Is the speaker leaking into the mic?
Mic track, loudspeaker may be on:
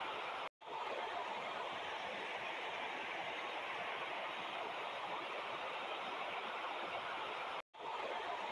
No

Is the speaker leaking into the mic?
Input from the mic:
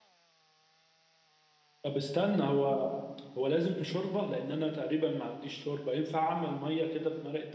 No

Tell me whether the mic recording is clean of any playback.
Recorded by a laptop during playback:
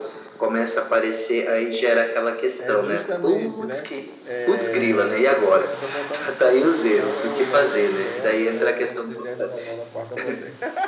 No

